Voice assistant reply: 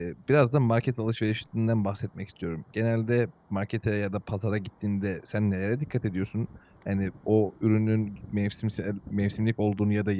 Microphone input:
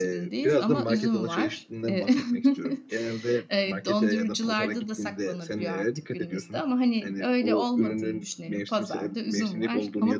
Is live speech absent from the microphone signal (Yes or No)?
No